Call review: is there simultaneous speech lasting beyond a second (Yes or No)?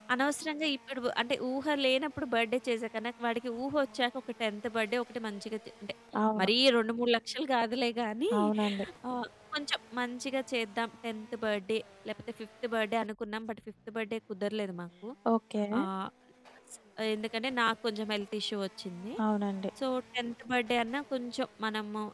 No